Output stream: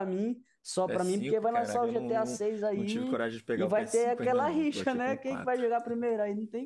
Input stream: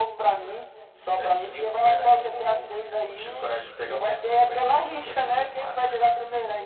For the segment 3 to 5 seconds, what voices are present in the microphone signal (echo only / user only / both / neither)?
echo only